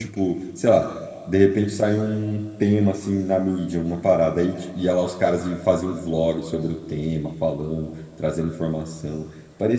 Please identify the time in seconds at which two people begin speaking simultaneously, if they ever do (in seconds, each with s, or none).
none